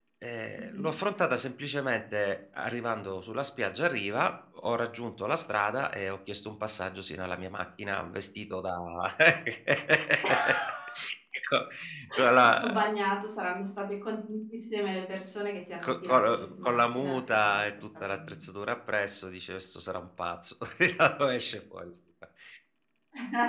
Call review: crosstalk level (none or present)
present